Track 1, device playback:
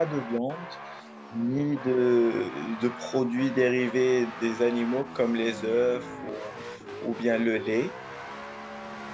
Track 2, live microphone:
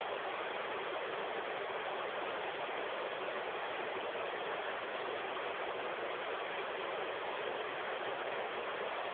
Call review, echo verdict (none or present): none